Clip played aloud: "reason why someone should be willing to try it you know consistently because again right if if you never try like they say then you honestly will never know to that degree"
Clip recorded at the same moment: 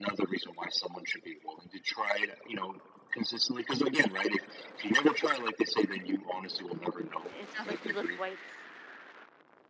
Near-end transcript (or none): It sounds like you lift weights.